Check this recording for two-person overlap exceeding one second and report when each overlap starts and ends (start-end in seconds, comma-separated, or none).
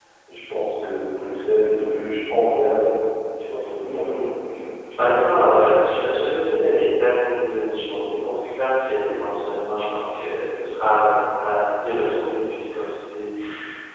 none